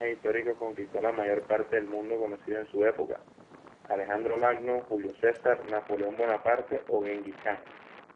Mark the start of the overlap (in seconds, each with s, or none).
none